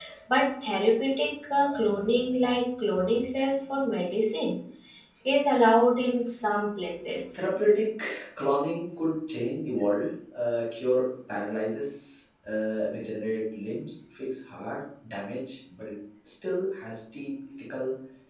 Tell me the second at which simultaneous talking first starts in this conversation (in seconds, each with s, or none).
none